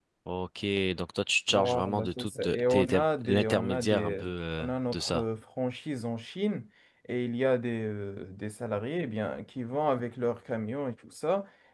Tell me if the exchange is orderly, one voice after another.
No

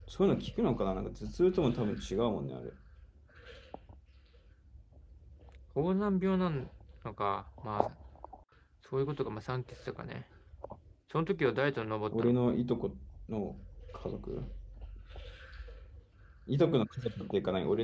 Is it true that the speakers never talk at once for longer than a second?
Yes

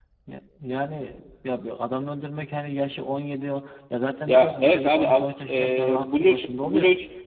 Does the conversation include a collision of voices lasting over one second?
Yes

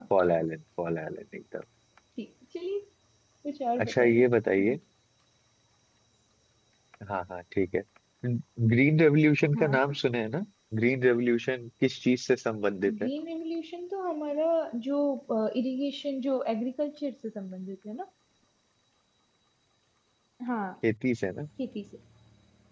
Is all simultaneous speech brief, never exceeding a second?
Yes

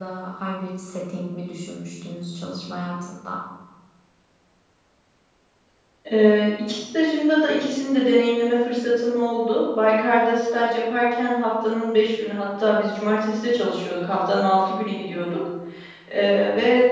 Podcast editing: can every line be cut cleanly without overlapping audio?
Yes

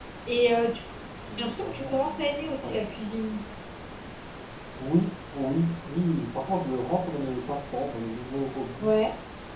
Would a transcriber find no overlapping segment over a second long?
No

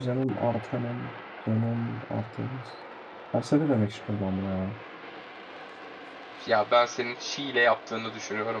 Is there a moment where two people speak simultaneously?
No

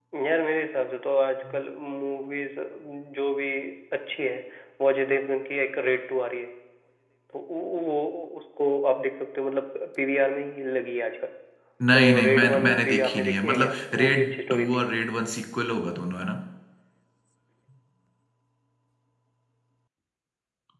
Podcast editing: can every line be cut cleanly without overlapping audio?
No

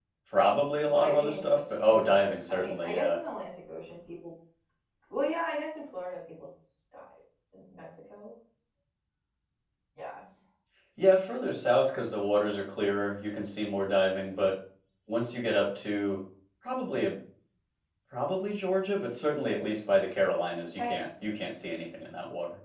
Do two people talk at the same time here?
Yes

